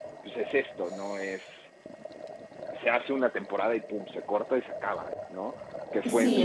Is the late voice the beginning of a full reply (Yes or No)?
No